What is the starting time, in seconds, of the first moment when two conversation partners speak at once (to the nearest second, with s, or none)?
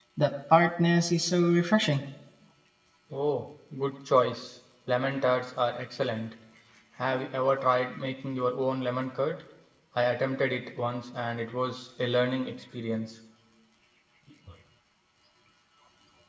none